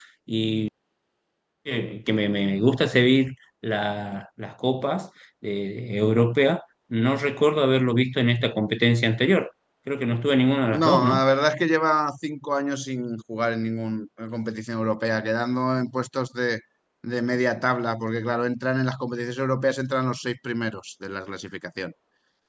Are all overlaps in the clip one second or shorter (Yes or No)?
Yes